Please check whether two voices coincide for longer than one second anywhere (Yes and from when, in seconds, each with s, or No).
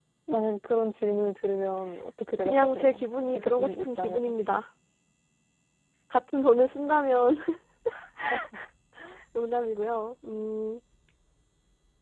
Yes, from 2.4 s